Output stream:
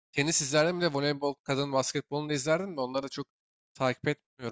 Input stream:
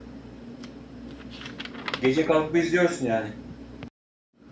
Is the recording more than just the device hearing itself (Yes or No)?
Yes